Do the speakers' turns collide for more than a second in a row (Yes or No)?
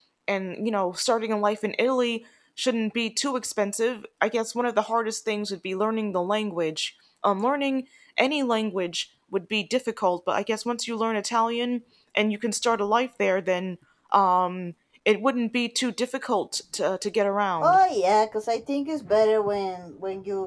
No